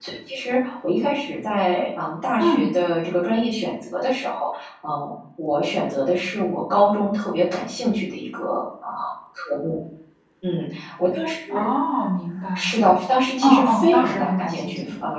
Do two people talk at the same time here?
Yes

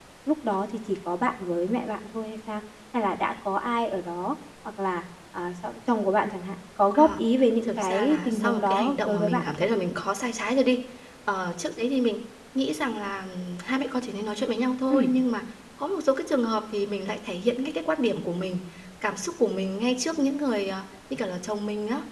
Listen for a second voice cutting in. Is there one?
Yes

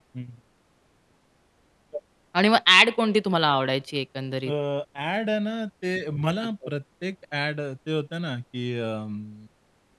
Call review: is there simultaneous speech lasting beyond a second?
No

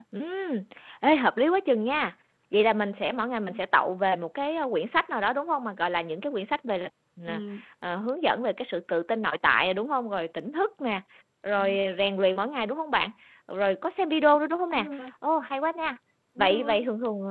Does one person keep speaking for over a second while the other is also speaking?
No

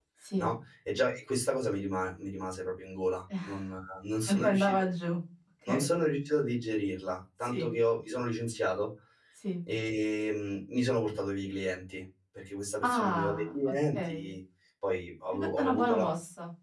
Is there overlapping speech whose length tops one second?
Yes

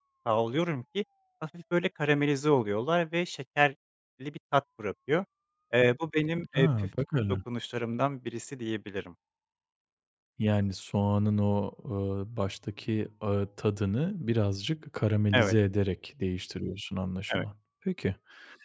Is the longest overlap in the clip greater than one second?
No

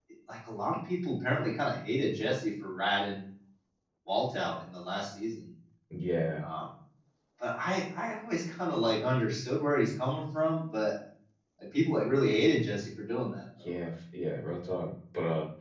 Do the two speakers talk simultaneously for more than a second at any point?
No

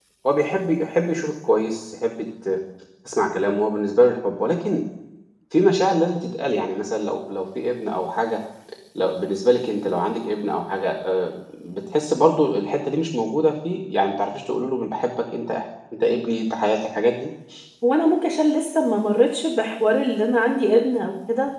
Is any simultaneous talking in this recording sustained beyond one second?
No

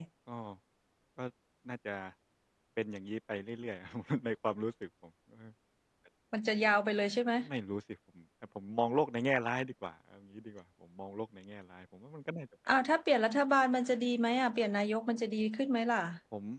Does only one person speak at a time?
Yes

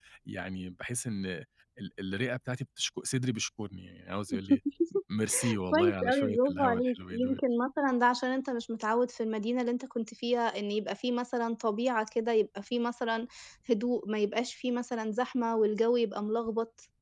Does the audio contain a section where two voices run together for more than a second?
Yes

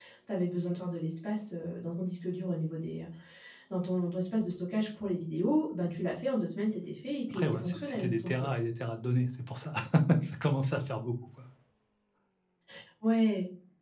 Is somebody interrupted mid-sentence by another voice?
Yes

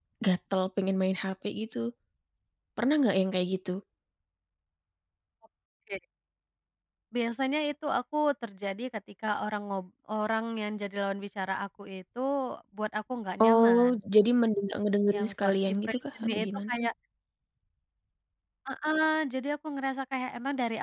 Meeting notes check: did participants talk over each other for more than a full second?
Yes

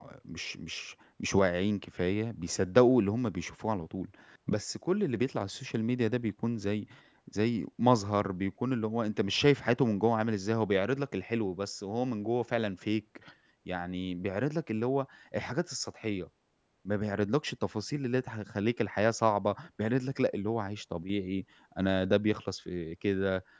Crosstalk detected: No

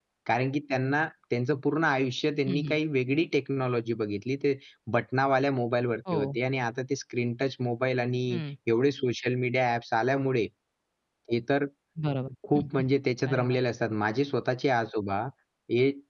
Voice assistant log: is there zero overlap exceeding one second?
Yes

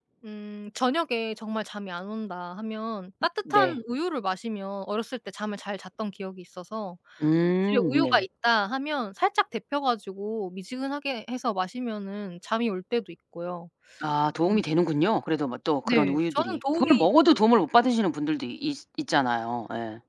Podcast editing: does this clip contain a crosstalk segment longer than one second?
Yes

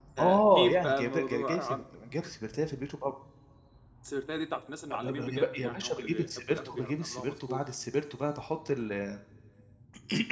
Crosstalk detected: Yes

